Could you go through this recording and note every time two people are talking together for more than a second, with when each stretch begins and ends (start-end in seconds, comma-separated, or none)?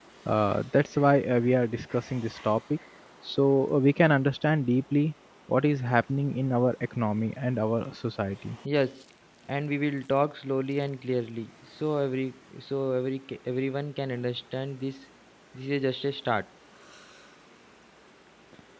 none